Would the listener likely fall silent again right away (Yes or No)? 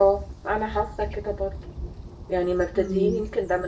Yes